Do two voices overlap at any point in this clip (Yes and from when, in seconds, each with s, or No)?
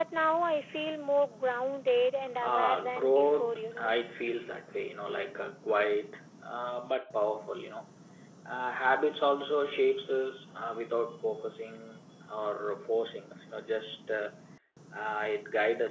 Yes, from 2.4 s